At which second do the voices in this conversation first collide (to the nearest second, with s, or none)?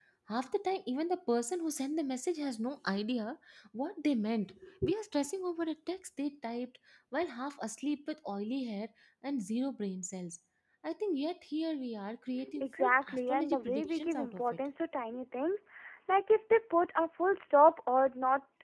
12 s